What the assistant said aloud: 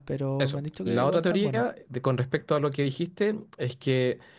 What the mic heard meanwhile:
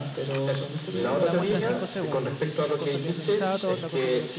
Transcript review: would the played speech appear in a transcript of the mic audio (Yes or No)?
Yes